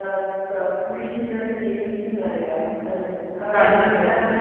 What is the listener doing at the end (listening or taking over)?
listening